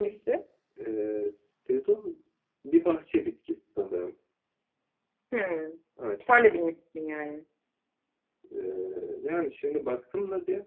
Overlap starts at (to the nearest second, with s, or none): none